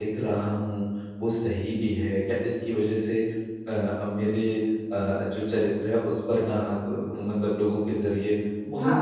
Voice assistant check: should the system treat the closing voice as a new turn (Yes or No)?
No